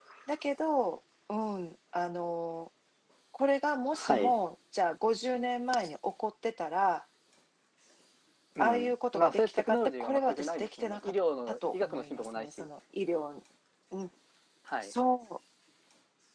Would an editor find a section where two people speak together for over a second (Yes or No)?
Yes